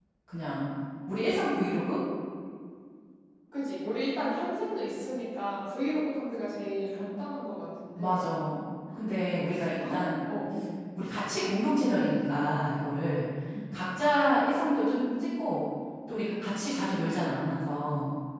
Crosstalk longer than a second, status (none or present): none